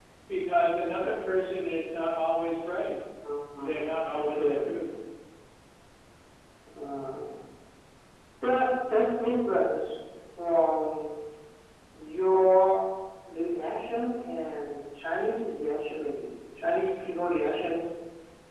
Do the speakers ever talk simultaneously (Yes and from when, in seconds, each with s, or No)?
Yes, from 3.6 s